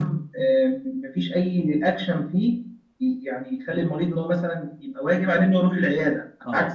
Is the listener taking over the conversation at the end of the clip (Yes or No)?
Yes